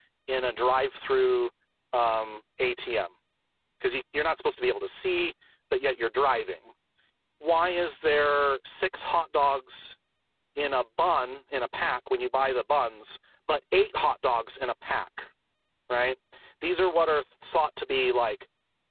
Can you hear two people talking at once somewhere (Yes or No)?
No